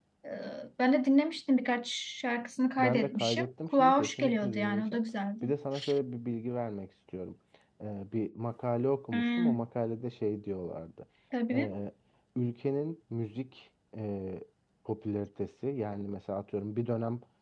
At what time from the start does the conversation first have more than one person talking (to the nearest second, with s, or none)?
3 s